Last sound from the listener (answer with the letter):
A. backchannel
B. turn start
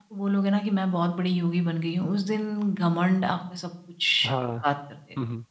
B